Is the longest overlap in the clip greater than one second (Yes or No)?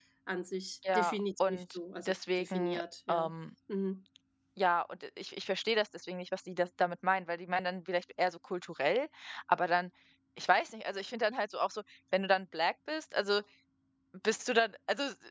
Yes